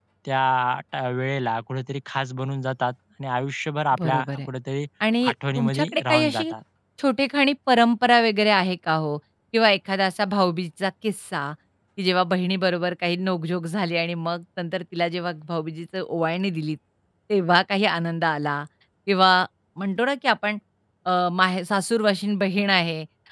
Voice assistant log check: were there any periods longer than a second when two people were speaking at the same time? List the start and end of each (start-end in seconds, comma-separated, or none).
5.3-6.5